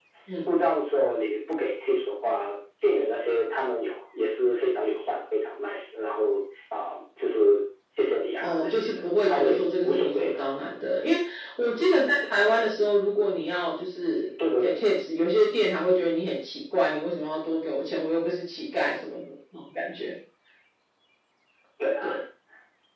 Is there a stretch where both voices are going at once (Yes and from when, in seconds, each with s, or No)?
Yes, from 8.4 s